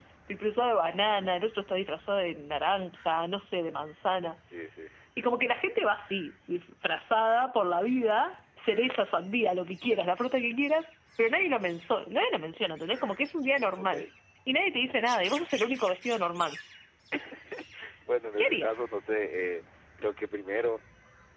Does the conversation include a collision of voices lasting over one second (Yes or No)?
No